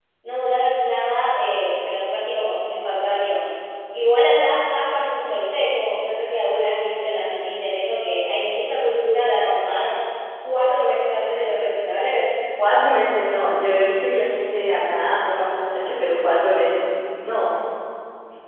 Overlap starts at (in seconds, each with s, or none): none